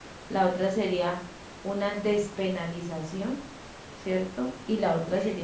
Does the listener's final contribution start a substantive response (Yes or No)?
No